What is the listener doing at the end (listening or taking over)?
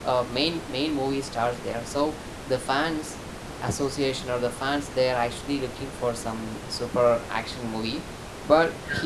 listening